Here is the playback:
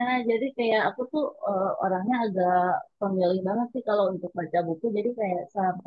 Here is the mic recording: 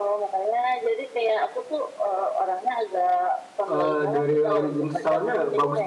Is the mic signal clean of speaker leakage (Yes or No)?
No